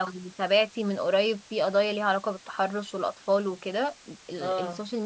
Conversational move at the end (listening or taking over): listening